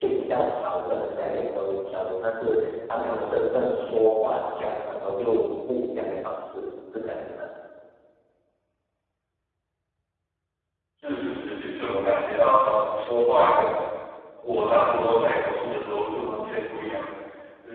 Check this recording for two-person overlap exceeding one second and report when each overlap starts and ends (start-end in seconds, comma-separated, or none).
none